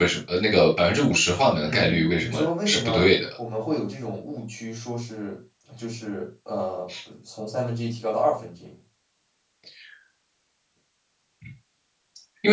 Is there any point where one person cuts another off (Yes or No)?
Yes